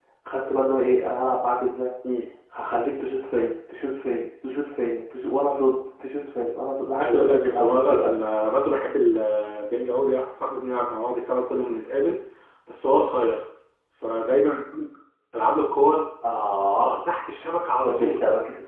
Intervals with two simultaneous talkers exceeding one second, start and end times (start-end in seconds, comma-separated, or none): 7.0-8.2